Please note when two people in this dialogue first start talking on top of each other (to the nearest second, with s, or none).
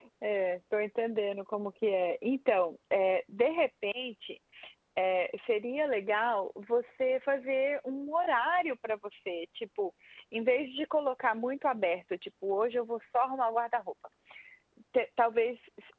none